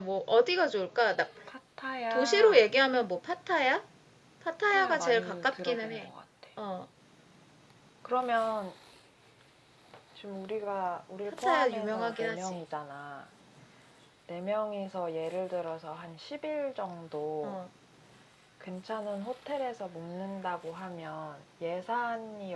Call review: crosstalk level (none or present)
present